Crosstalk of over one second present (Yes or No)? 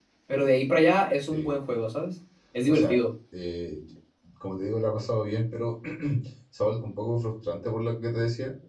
No